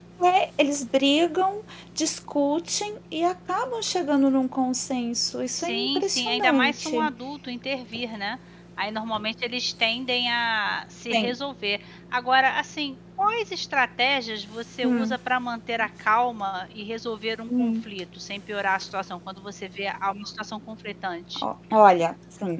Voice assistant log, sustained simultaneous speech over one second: present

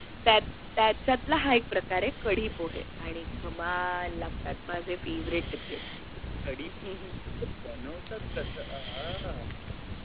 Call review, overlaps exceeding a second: none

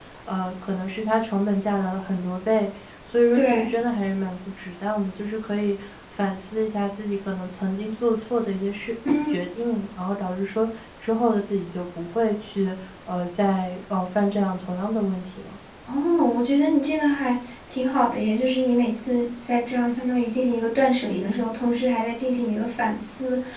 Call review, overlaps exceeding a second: none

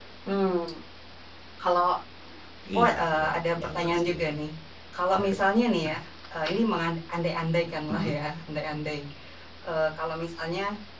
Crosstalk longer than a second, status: present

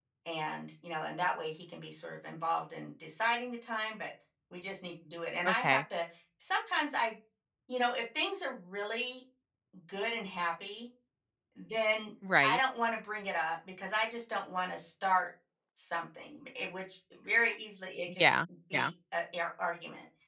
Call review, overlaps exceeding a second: none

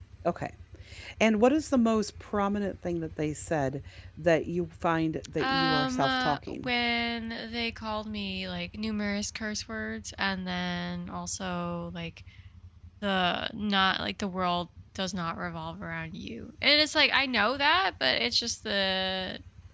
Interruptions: present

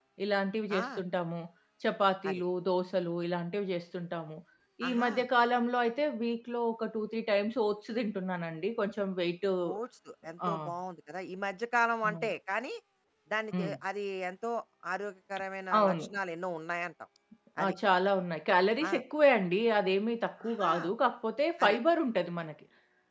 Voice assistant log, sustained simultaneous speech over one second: none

